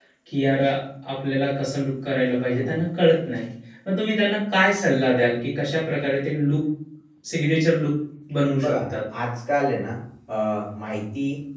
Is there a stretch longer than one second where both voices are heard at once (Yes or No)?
No